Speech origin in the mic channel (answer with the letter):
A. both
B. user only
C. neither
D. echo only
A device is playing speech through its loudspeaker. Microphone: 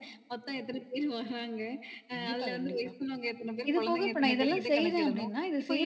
A